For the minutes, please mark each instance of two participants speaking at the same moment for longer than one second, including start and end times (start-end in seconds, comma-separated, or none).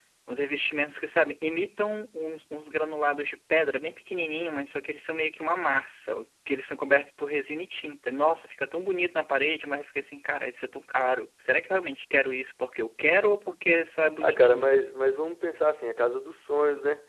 none